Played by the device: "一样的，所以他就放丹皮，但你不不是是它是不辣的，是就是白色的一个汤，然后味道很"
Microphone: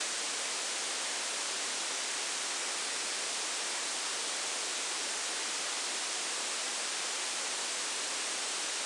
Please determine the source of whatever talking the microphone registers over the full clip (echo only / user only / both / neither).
neither